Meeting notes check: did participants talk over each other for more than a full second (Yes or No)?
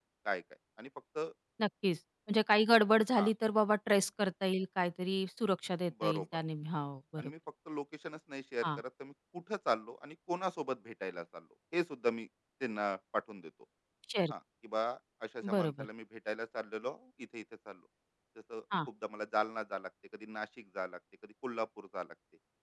No